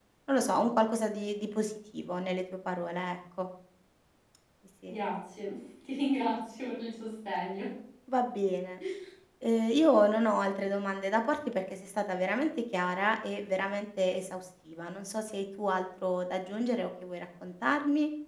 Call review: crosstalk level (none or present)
none